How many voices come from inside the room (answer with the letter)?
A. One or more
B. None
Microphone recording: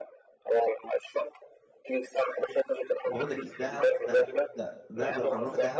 A